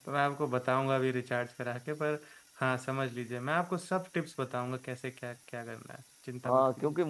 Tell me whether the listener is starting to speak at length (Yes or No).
Yes